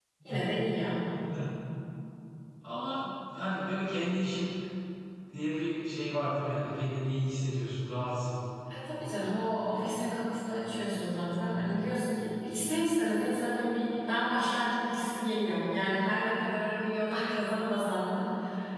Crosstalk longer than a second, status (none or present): none